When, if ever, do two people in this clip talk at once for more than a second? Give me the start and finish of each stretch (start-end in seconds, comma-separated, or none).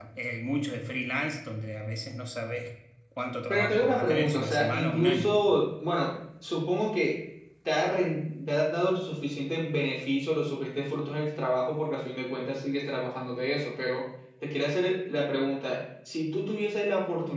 3.5-5.3